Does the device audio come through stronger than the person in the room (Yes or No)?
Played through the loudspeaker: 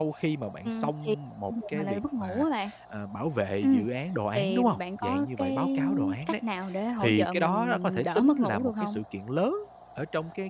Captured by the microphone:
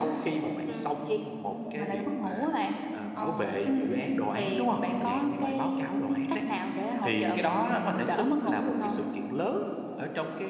Yes